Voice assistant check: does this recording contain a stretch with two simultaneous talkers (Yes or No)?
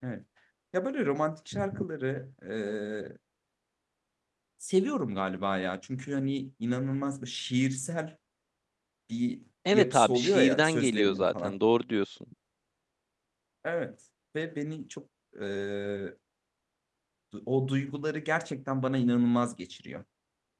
Yes